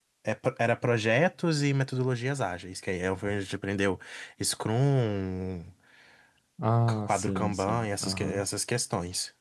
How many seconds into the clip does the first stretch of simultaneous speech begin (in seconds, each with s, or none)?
7.1 s